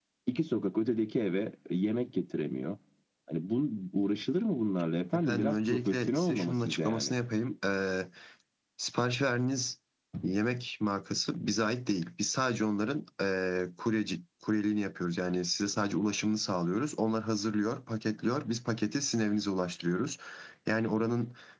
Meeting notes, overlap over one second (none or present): present